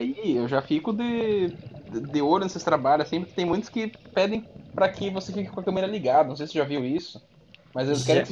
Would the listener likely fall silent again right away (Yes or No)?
Yes